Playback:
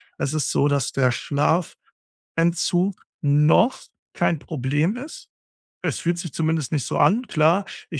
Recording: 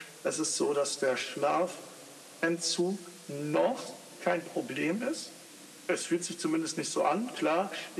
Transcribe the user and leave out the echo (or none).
none